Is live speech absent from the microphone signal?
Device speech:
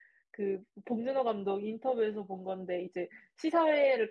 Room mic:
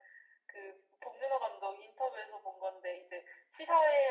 Yes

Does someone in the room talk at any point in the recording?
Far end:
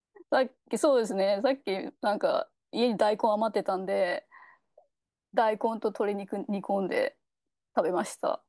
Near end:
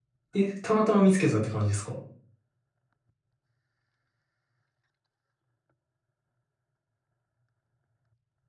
Yes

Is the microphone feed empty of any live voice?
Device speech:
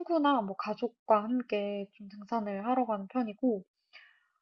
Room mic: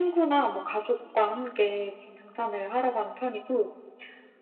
Yes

